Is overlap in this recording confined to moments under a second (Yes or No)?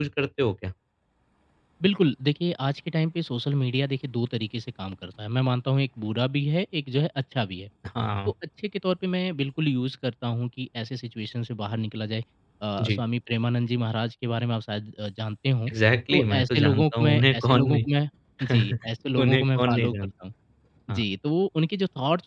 No